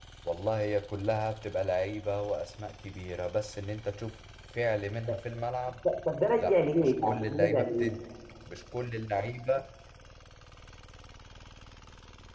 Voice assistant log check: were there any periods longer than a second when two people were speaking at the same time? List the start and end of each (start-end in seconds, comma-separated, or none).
6.4-7.9